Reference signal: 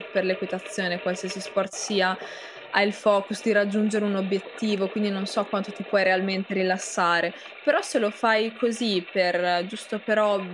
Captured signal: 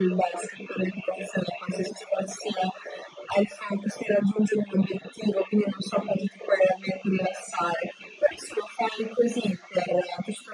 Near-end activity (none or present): none